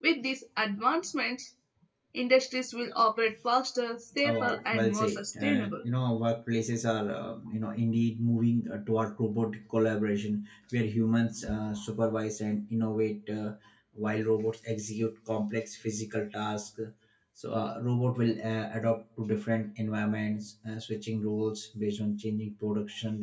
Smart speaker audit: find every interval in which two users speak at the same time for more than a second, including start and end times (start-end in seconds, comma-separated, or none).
4.2-5.8